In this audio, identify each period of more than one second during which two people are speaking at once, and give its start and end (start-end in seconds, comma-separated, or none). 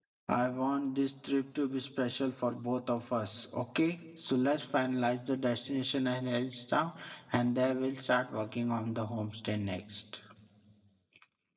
none